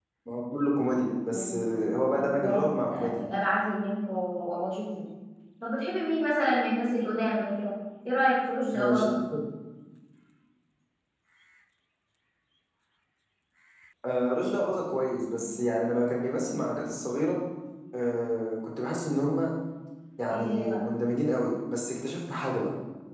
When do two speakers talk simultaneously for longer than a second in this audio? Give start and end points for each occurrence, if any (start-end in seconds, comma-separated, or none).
1.3-3.2